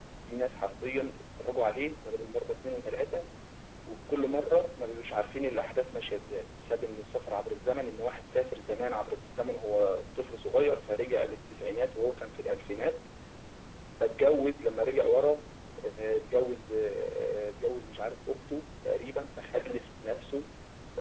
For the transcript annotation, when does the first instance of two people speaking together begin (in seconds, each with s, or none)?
none